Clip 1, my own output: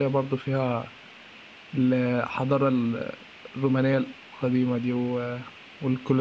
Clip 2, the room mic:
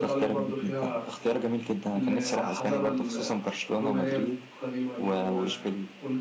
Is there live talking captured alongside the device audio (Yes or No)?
Yes